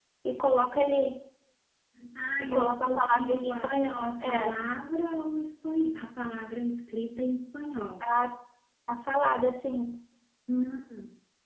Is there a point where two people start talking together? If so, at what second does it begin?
3 s

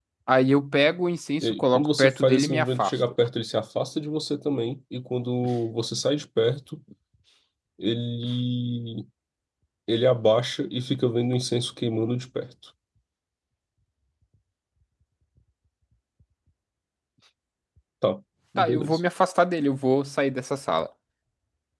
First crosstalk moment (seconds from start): 1 s

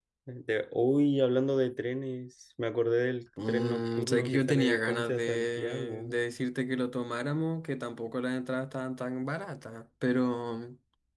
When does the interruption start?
3 s

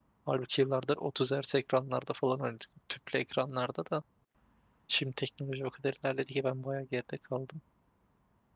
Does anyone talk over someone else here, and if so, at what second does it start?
none

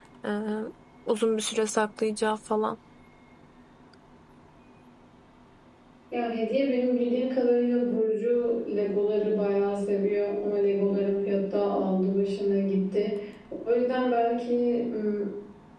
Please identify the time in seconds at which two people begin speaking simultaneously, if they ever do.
none

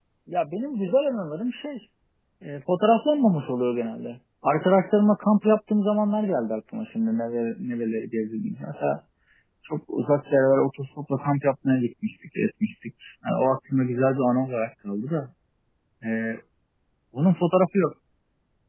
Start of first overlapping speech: none

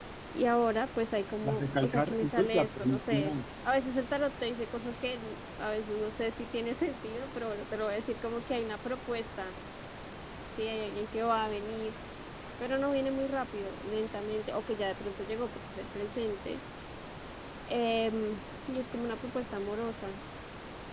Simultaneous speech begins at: 1 s

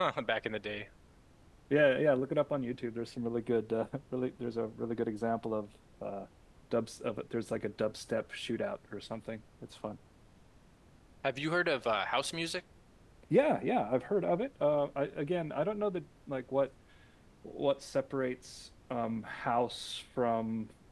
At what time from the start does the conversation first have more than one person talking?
none

